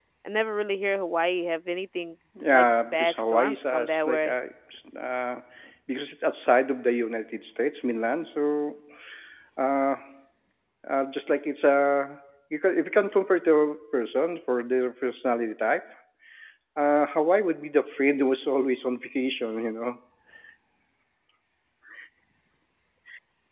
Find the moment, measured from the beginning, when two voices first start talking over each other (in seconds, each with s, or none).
2.4 s